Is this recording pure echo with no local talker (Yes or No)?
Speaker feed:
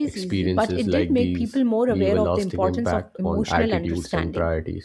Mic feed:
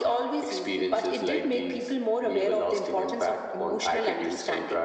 Yes